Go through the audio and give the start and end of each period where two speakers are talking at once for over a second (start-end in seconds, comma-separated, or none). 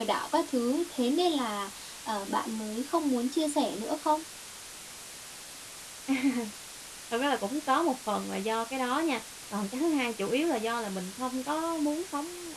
none